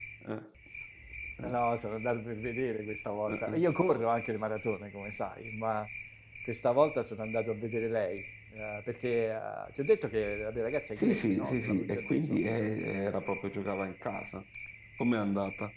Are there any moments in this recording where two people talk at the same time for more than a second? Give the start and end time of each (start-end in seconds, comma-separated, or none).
11.0-12.4